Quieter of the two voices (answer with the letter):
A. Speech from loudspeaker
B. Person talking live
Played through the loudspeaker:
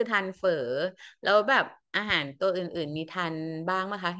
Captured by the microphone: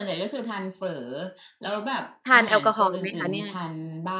A